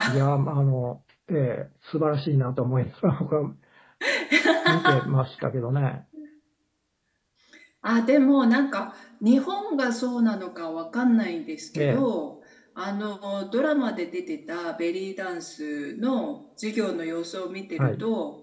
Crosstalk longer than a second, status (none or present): none